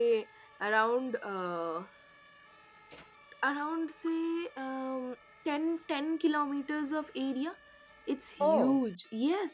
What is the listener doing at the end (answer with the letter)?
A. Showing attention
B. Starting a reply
A